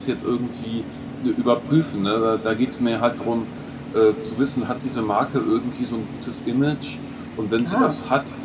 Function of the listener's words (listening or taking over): listening